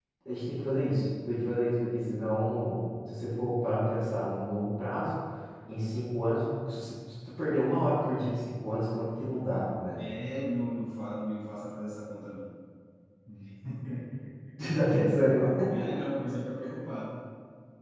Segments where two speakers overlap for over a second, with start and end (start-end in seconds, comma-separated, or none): none